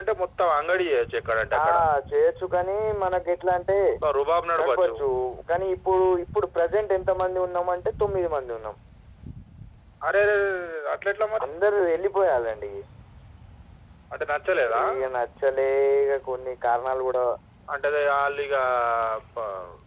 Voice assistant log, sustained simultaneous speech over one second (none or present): none